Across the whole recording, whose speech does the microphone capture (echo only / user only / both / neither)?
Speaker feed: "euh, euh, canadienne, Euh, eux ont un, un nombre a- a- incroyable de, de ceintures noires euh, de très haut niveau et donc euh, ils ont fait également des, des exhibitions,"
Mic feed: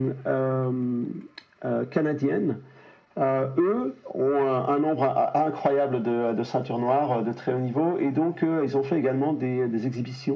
echo only